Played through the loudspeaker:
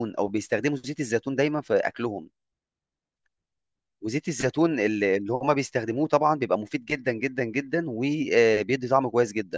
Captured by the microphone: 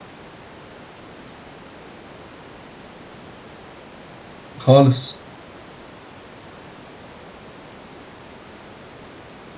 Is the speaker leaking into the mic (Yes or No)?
No